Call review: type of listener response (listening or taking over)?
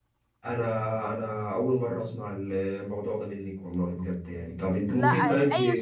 taking over